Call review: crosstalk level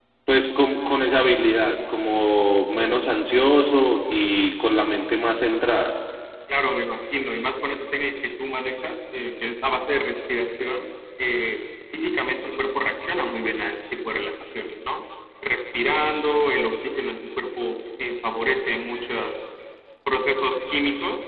none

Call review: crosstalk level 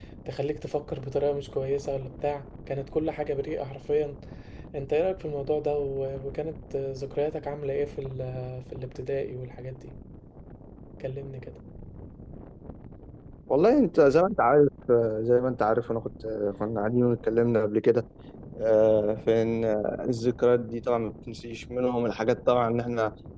none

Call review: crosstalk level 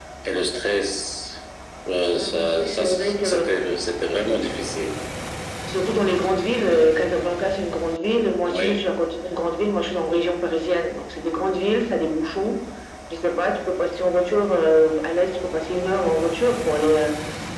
present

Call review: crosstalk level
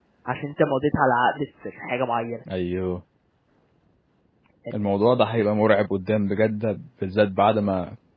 none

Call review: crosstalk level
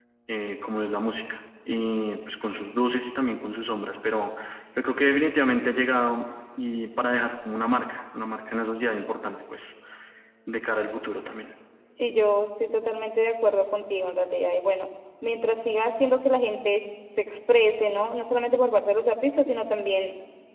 none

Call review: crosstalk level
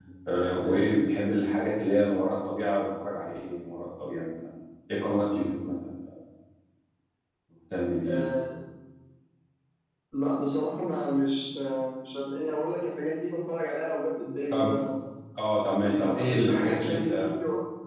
present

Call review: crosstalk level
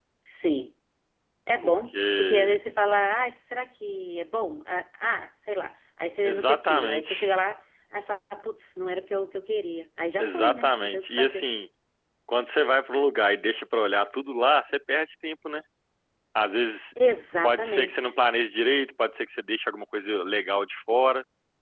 present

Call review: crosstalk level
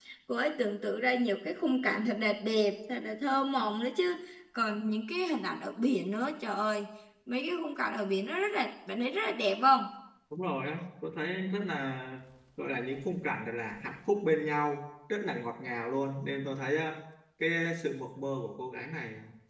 none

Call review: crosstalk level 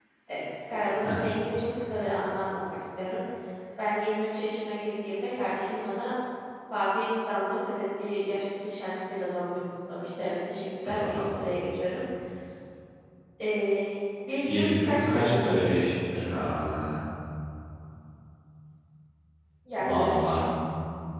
present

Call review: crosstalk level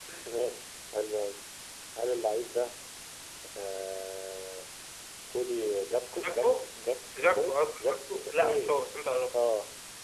present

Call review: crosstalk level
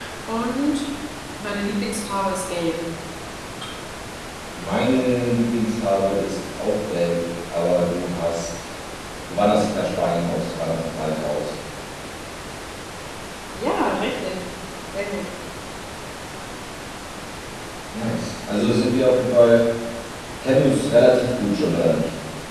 none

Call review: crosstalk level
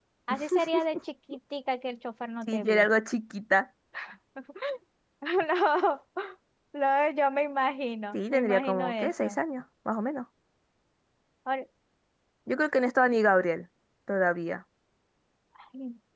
present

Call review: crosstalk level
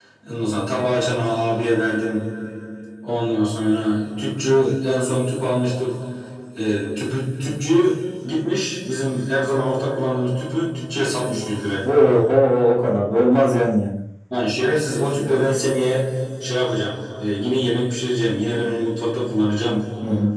none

